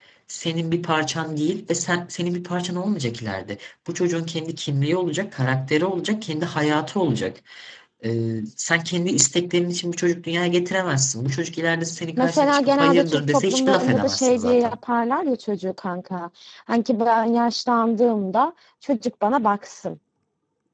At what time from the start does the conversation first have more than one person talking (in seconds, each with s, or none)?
12.2 s